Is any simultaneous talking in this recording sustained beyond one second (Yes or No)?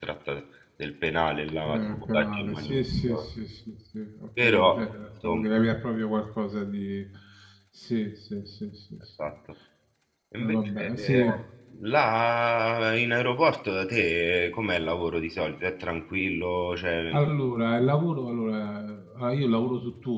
Yes